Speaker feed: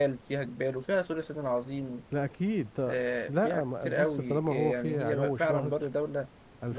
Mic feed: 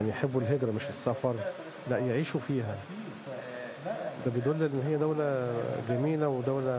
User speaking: Yes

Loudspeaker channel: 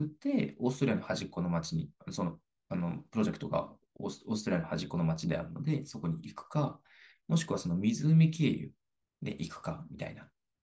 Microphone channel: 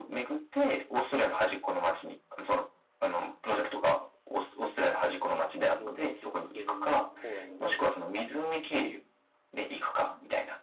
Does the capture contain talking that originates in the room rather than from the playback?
Yes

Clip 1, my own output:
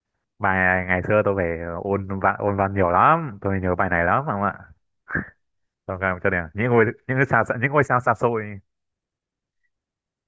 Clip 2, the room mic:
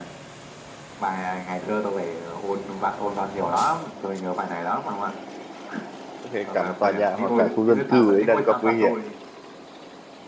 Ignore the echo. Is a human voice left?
Yes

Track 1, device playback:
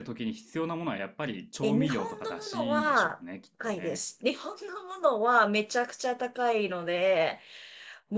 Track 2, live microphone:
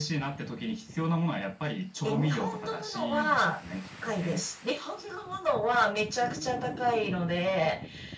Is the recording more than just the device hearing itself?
No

